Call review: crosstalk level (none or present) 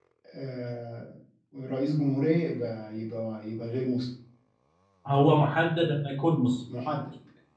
none